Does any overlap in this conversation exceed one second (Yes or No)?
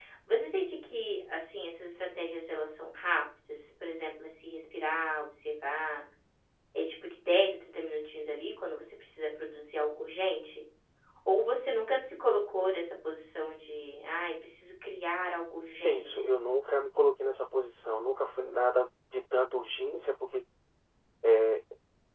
No